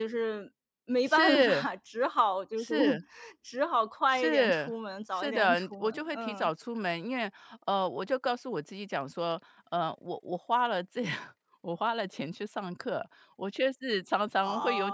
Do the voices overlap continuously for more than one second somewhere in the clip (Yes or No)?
Yes